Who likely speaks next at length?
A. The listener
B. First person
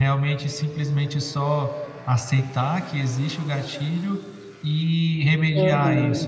B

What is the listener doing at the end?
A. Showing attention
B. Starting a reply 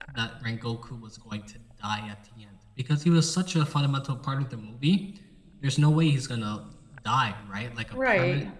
A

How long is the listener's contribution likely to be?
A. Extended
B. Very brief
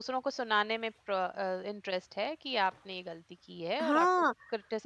A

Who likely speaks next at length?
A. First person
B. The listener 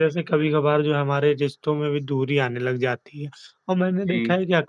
A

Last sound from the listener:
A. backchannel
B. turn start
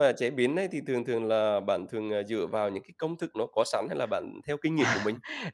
B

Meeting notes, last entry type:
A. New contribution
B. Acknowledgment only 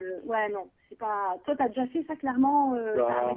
A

